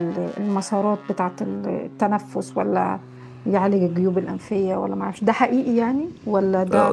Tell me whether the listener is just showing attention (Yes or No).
No